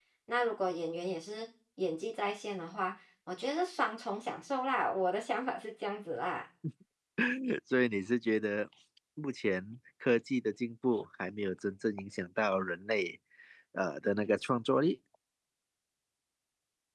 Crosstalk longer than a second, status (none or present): none